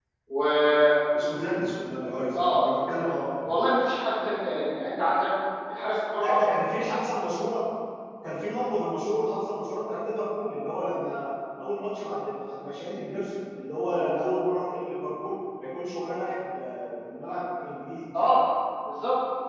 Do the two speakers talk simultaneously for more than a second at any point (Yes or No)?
No